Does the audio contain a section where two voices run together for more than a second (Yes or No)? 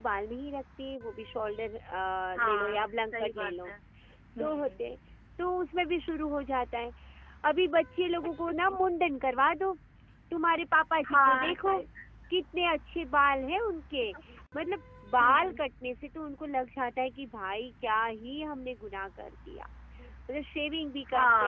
Yes